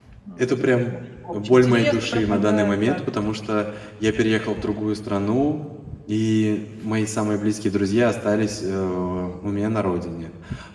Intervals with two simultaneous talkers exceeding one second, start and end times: 1.3-3.0

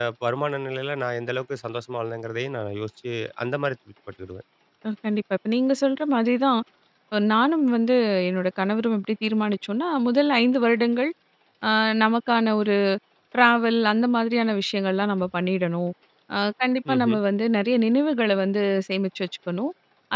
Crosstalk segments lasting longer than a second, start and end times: none

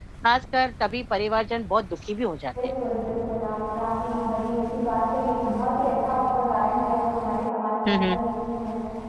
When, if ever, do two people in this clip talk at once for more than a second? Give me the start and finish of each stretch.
none

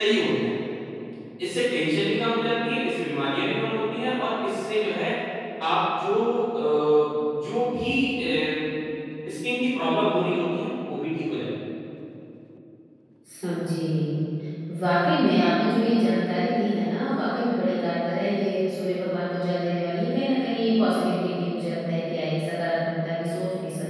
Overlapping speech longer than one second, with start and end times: none

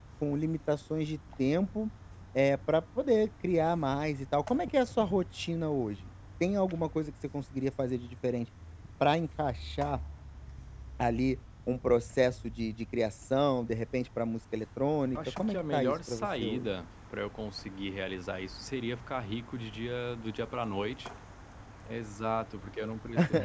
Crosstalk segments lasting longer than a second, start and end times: 15.2-16.7

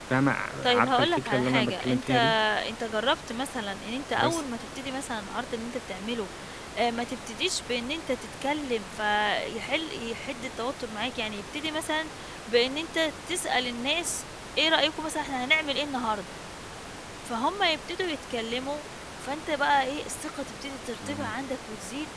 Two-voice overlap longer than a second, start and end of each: 0.6-2.1

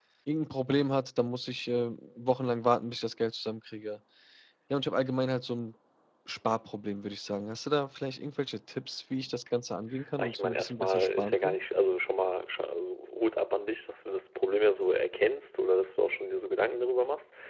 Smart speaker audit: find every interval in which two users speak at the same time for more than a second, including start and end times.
10.2-11.6

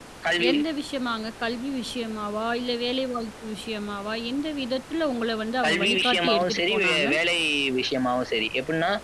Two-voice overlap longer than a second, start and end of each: 5.6-7.1

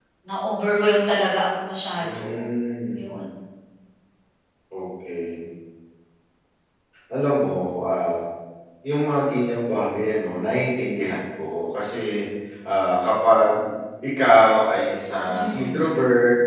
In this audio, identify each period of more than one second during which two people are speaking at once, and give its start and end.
none

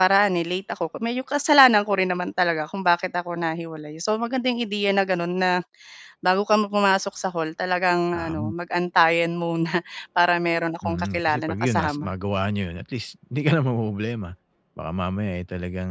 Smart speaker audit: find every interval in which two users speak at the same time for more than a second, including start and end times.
10.8-12.1

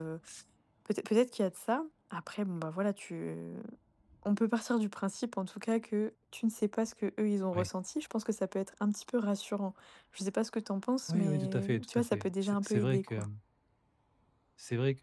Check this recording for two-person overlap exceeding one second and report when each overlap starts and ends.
11.1-13.2

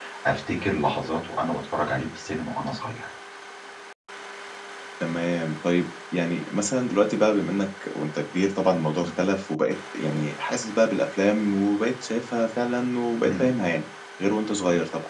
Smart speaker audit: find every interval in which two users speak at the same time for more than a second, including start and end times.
none

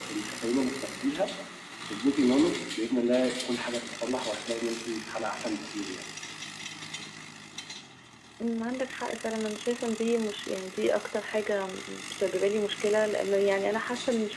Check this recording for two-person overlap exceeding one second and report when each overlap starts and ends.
none

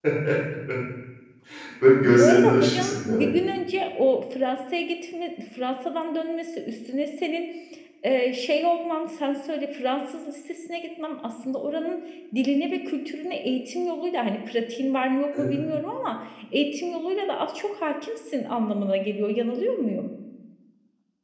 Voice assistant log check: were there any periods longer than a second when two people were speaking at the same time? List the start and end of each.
2.0-3.3

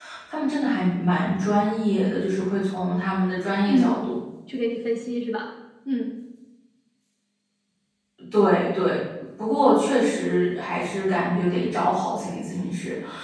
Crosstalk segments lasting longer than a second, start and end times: none

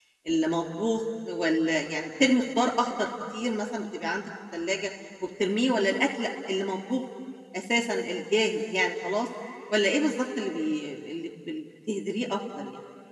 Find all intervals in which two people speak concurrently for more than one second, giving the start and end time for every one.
none

